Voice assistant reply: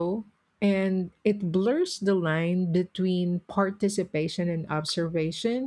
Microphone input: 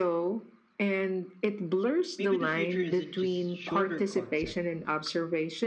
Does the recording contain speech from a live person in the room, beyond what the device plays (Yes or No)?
Yes